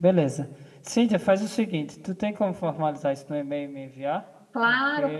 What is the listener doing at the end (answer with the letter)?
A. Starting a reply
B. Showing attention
A